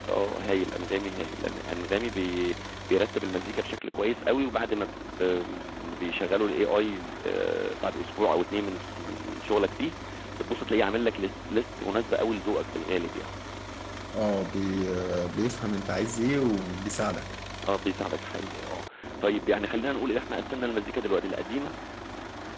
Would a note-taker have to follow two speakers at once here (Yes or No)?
No